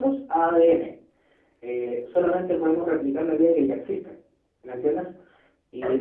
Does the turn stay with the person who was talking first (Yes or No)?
Yes